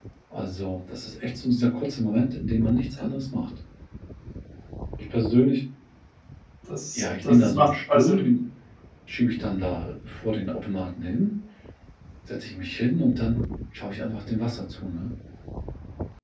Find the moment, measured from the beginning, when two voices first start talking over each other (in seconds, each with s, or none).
6.9 s